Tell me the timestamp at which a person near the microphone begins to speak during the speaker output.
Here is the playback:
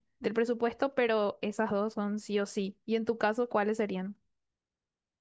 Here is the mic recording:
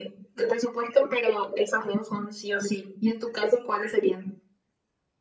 none

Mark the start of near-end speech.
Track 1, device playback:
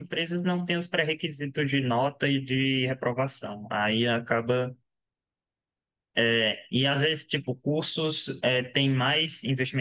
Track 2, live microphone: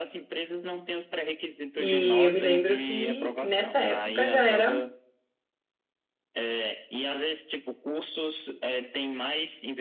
1.8 s

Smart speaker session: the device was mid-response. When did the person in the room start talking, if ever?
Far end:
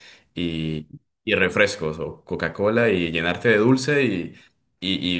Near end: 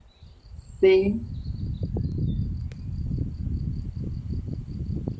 0.8 s

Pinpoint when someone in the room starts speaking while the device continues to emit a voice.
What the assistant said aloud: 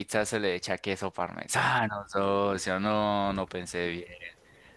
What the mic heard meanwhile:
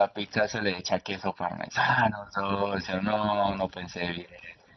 none

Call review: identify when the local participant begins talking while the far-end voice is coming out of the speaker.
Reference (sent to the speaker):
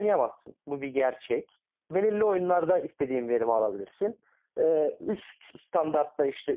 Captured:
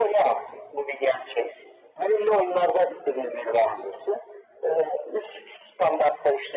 none

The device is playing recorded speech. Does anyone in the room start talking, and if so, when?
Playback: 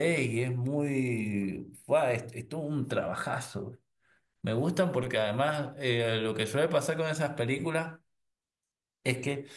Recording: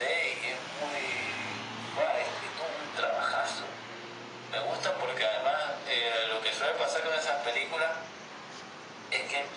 none

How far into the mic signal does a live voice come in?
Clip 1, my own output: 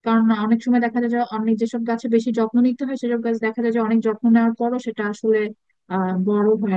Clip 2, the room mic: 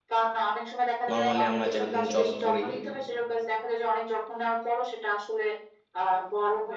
1.1 s

